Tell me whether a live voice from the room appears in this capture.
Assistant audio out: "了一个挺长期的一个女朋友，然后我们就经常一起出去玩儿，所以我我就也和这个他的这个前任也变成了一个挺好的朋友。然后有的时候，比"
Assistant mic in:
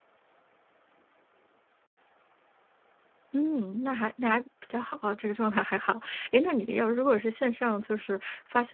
Yes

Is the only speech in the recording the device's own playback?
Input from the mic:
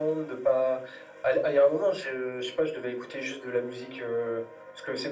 Yes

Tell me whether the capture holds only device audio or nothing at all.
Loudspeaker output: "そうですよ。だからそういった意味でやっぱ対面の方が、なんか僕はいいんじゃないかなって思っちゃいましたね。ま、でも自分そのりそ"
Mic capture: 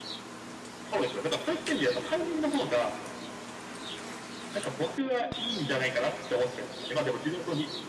Yes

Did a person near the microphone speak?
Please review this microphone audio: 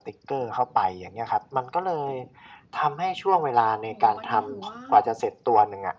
Yes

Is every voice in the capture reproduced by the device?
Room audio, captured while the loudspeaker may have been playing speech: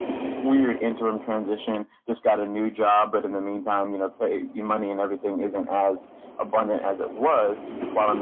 Yes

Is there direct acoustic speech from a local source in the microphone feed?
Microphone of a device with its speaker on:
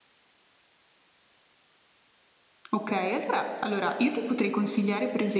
Yes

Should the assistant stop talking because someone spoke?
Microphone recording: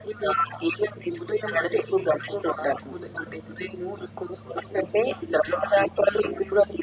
No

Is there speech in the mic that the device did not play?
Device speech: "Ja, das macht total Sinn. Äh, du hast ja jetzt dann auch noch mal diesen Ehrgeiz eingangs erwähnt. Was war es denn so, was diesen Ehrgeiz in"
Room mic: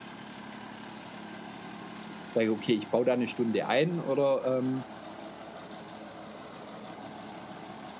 Yes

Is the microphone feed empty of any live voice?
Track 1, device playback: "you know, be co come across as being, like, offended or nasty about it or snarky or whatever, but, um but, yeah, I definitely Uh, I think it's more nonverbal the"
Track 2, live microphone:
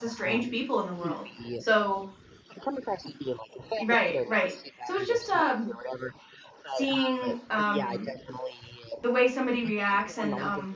No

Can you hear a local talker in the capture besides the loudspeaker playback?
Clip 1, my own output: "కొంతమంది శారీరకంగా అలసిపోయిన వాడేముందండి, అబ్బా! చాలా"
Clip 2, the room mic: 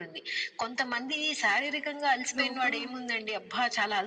Yes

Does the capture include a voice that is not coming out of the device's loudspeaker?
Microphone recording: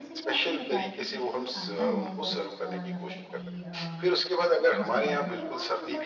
Yes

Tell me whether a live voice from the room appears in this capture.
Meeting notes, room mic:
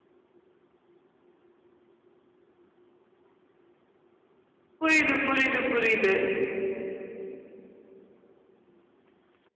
Yes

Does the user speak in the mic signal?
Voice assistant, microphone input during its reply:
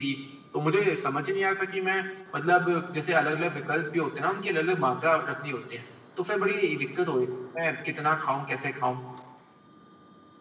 No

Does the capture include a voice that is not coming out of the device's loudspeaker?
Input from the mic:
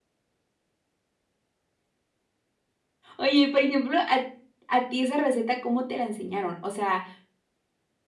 Yes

